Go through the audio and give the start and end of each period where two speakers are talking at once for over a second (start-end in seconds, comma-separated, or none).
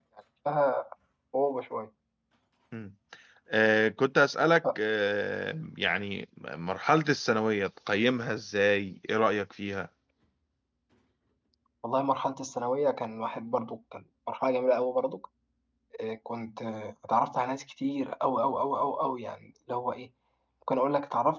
none